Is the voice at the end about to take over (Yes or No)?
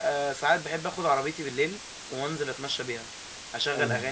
No